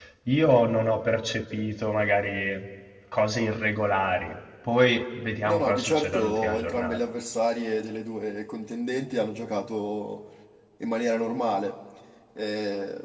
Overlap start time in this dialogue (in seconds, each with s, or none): 5.4 s